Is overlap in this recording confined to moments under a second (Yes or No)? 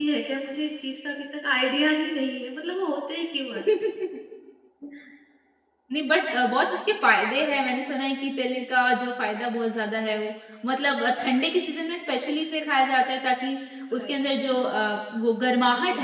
Yes